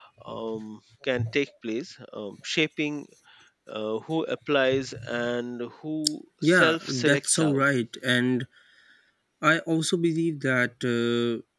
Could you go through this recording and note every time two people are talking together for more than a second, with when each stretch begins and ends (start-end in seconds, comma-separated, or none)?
6.4-7.6